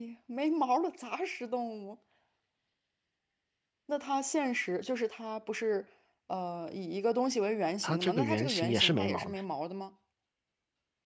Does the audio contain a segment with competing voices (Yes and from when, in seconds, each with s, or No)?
Yes, from 7.8 s